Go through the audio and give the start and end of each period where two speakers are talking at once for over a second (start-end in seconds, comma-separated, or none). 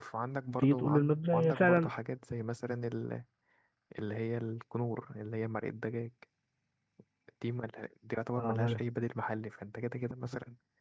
0.6-1.9